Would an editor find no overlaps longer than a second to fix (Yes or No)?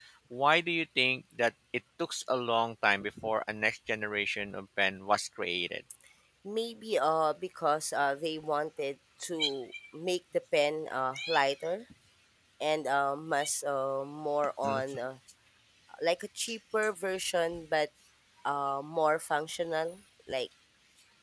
Yes